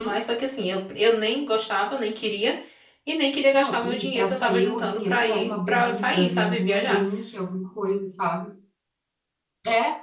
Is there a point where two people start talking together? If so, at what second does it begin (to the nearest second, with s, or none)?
4 s